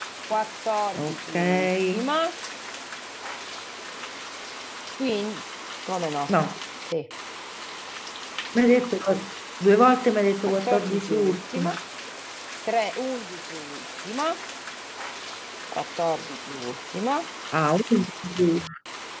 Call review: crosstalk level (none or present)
present